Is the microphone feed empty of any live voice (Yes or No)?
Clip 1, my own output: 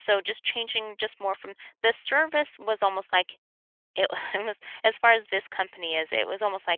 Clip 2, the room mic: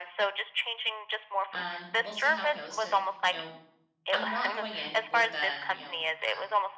No